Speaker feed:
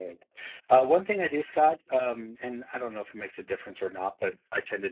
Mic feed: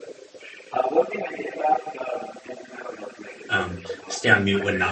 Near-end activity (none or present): present